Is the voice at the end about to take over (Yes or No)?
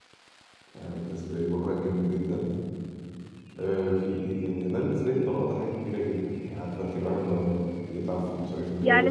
Yes